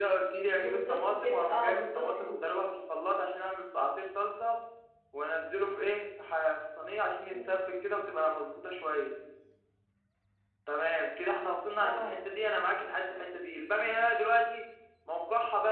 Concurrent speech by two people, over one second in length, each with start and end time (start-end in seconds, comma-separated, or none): 0.6-2.4